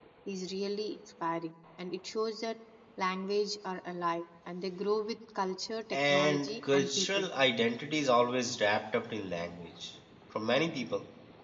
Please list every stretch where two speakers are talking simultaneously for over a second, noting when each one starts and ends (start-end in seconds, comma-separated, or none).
5.9-7.2